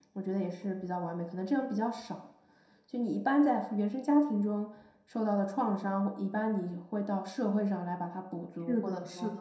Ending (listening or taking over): taking over